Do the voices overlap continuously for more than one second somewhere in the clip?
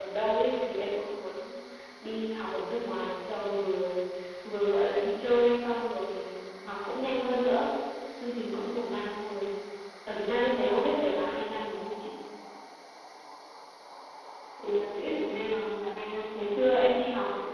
No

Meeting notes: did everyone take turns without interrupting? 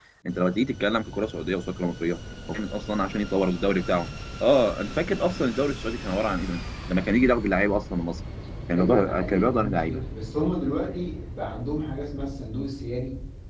No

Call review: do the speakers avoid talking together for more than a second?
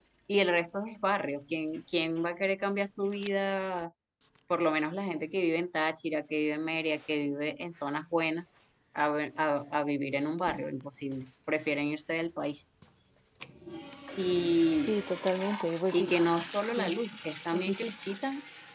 Yes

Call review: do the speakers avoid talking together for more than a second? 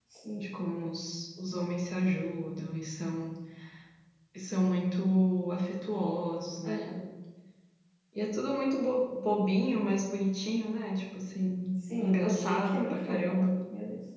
No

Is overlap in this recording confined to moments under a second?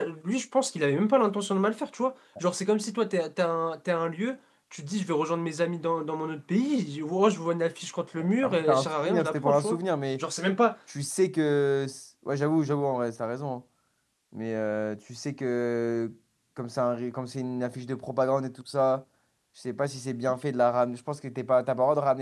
No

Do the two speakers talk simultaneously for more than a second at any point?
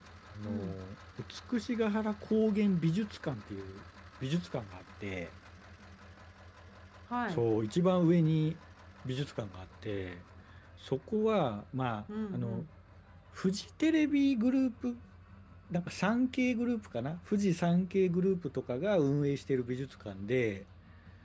No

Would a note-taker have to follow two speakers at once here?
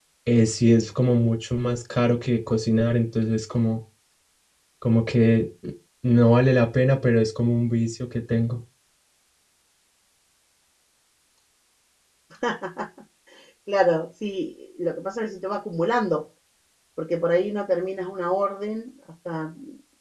No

